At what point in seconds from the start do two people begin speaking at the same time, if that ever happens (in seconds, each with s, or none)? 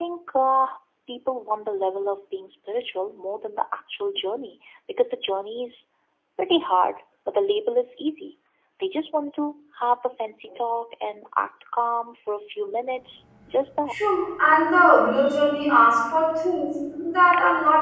none